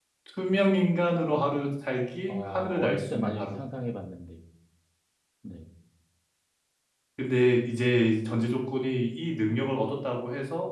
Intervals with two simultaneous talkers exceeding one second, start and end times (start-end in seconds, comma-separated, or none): 2.3-3.5